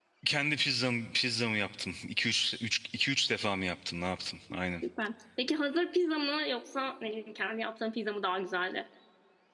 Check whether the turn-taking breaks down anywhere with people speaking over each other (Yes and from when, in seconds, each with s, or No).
No